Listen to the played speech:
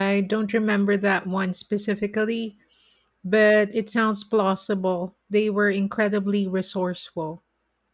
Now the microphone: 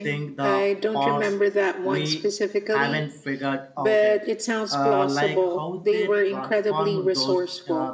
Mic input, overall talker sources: both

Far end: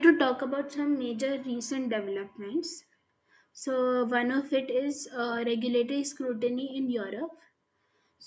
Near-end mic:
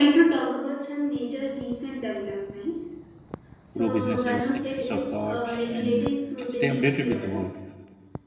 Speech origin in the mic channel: both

